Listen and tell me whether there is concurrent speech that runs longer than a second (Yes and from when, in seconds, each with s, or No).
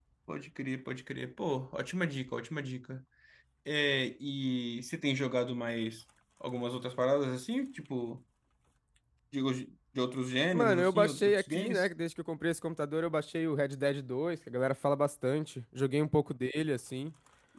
Yes, from 10.5 s